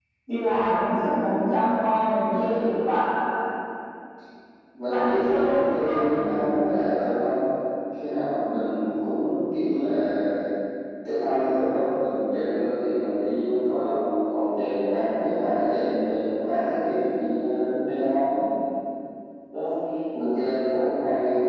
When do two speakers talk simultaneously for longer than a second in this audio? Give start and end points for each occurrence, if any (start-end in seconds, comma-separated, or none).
4.9-6.3